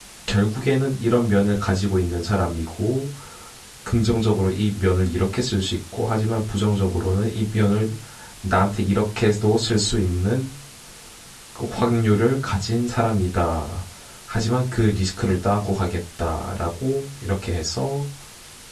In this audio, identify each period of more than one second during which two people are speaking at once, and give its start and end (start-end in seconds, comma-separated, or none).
none